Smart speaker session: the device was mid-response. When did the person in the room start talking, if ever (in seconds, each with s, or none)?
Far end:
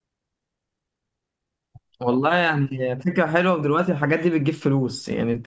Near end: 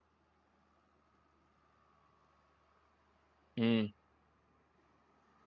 3.6 s